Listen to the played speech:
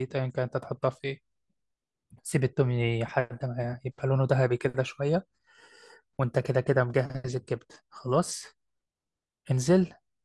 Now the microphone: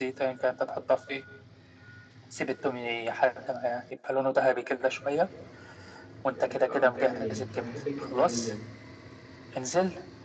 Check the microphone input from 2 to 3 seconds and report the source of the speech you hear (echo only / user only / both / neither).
echo only